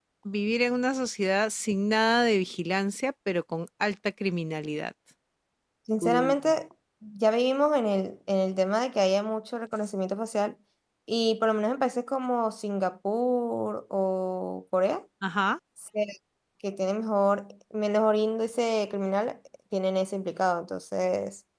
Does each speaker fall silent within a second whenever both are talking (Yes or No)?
Yes